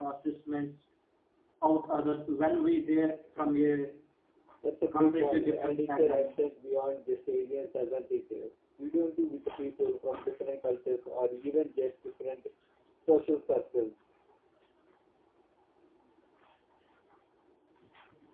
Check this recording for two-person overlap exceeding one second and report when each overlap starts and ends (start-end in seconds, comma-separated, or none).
4.9-6.3